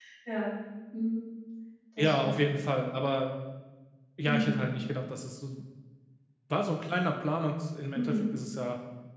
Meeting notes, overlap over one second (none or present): none